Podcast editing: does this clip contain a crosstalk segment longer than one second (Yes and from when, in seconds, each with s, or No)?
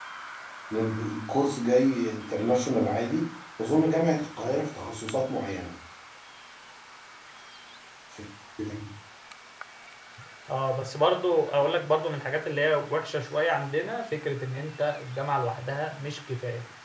No